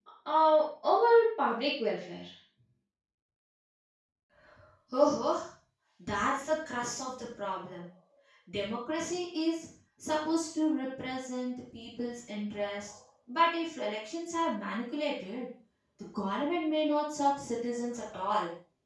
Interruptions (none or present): none